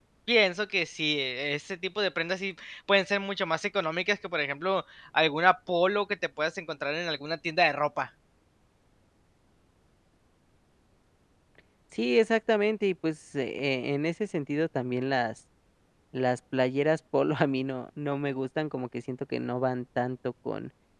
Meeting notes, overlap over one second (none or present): none